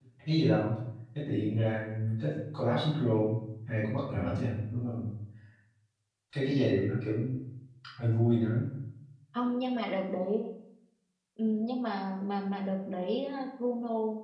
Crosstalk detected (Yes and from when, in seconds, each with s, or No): No